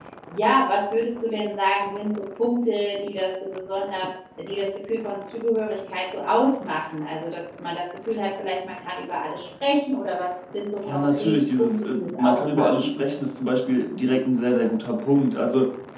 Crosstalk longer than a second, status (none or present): present